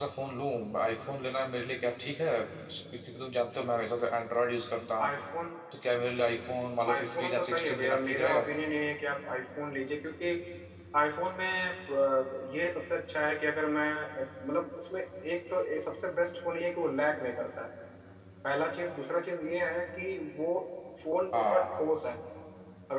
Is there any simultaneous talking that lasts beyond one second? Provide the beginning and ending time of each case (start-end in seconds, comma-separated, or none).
6.9-8.4